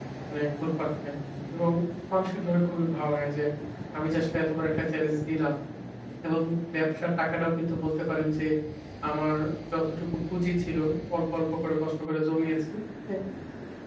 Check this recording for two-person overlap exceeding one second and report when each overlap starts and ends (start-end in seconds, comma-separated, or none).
none